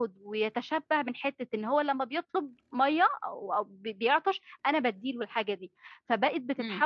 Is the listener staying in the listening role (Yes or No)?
Yes